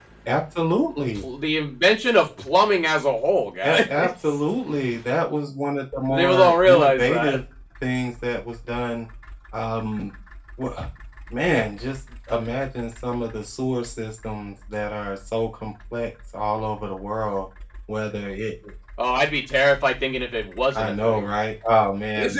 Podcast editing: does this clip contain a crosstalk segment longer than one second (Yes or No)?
Yes